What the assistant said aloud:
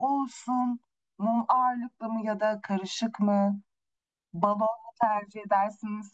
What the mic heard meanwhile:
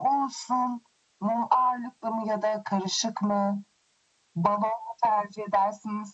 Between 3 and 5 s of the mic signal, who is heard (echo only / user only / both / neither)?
echo only